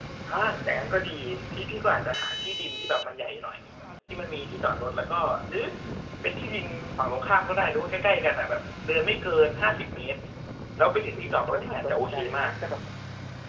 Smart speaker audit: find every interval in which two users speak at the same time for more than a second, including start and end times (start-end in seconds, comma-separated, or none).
11.2-12.5